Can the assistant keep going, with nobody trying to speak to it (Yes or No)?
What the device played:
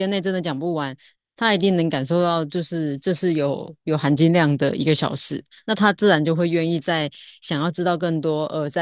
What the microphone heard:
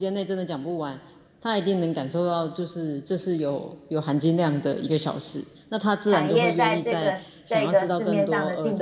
No